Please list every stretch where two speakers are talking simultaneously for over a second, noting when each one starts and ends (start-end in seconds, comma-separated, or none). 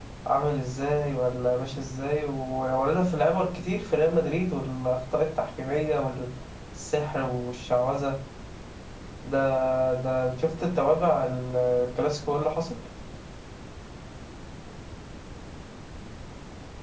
none